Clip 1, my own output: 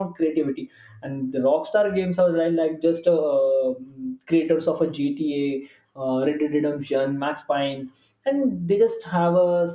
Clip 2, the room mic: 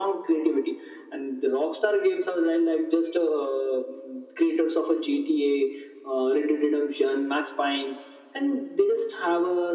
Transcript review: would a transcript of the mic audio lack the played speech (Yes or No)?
No